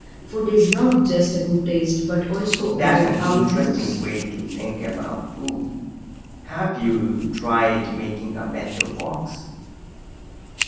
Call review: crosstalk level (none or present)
present